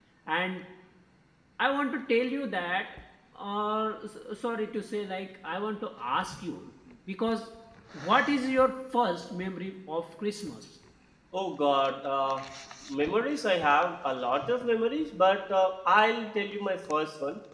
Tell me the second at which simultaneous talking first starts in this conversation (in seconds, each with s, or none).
none